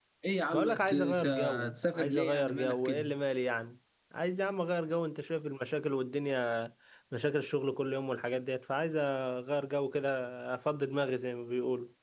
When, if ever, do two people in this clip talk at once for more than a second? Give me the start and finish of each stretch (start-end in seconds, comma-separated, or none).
0.5-3.0